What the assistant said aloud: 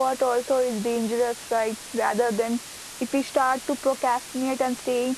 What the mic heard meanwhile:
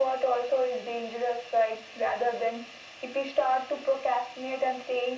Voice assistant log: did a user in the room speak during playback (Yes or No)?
No